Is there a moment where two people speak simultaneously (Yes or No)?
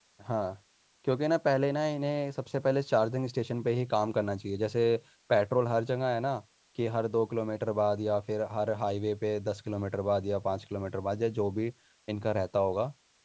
No